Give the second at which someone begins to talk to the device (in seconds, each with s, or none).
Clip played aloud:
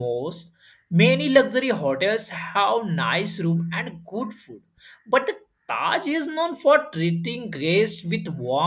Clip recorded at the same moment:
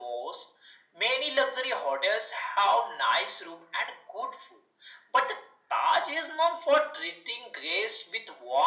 none